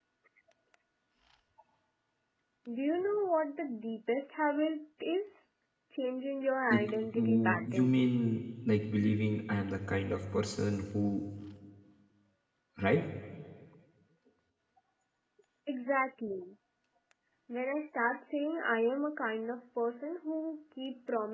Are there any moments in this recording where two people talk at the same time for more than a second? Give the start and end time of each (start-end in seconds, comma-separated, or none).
6.7-8.0